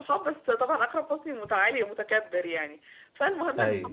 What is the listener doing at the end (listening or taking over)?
listening